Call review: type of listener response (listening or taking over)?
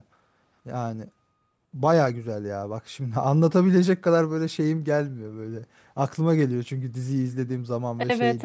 taking over